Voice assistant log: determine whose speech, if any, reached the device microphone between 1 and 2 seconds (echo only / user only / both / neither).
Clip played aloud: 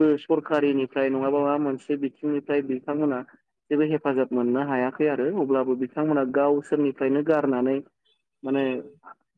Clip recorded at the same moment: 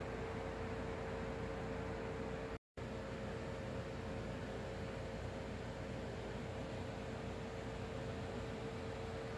neither